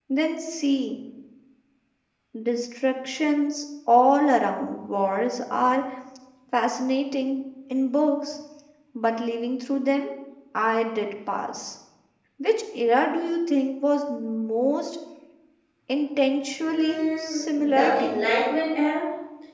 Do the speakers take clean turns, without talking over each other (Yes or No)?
No